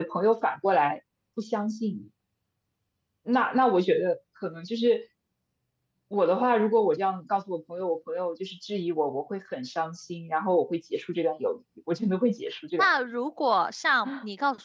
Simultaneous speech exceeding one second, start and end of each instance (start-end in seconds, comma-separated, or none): none